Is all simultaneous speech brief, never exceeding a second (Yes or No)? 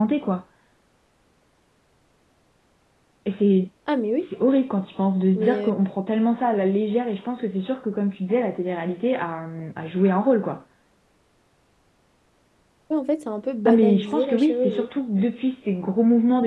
No